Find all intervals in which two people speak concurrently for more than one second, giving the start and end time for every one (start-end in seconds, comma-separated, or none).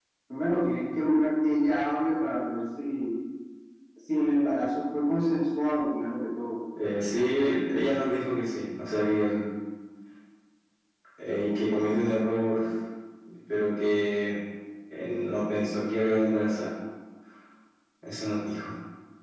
none